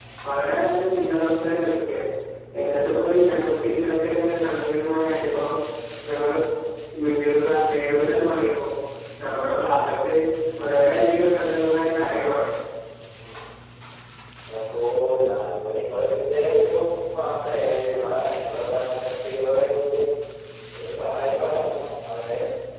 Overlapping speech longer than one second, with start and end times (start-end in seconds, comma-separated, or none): none